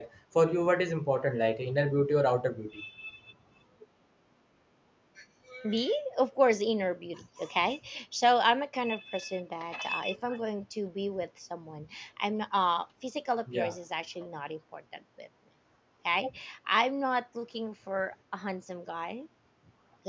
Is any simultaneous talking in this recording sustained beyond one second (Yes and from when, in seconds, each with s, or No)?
No